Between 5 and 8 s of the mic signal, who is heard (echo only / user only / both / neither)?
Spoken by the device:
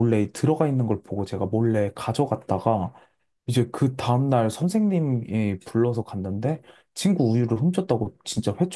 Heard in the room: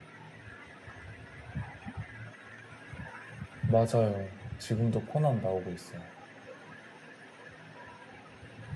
user only